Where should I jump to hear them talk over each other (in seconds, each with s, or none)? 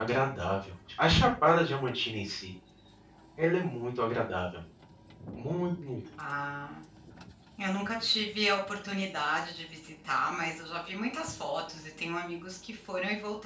none